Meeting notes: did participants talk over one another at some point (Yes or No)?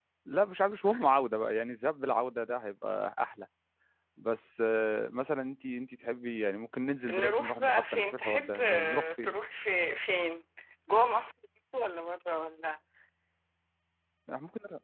Yes